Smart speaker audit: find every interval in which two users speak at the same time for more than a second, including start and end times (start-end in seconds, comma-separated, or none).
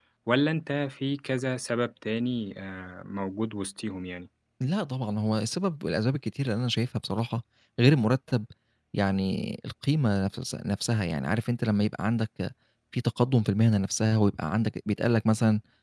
none